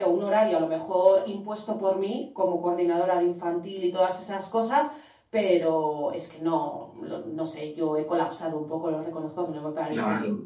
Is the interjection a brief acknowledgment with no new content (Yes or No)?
No